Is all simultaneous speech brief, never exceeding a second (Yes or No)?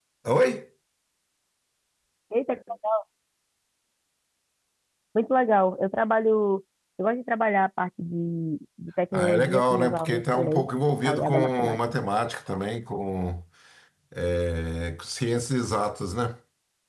No